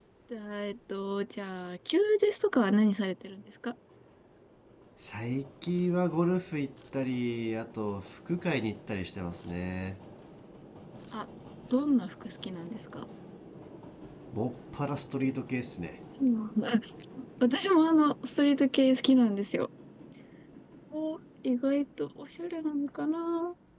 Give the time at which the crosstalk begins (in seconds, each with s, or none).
none